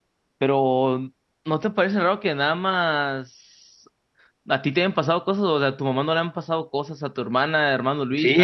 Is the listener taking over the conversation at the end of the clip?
Yes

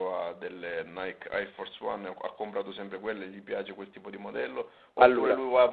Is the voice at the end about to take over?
No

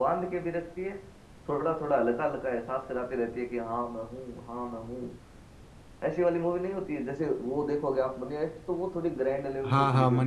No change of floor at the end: No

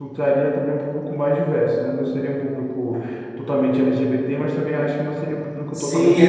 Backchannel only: No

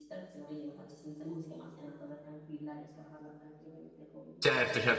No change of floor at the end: No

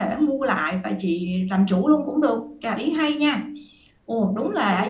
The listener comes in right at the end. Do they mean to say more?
Yes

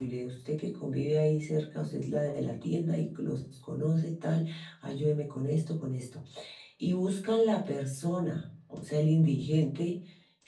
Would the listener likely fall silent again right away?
Yes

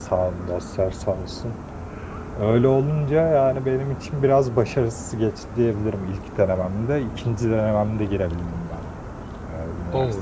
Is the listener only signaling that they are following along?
No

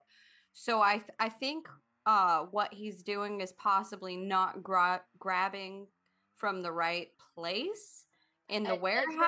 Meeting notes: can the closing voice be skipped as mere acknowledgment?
No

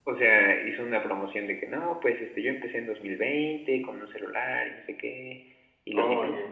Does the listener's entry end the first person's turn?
No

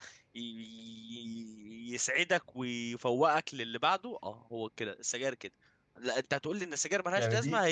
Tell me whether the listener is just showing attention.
Yes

